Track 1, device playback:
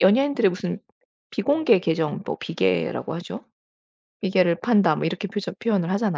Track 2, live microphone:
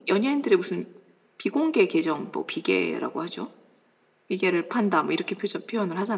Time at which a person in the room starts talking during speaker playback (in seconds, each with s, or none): none